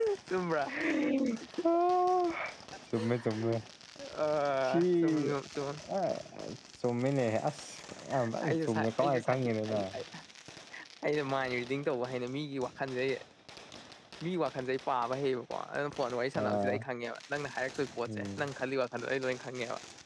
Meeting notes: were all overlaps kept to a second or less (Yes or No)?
No